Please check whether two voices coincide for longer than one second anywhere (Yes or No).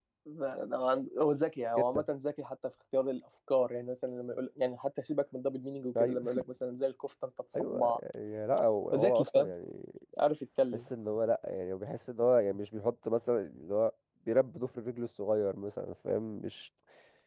No